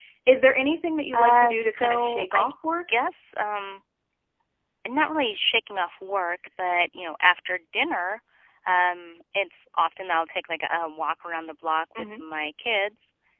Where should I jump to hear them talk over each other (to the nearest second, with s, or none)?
1 s